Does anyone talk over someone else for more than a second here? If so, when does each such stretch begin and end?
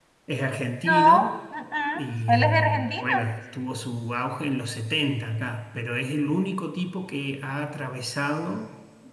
1.8-3.2

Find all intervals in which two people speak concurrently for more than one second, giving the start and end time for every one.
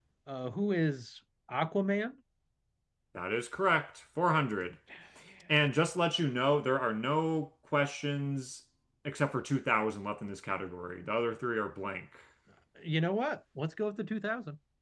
none

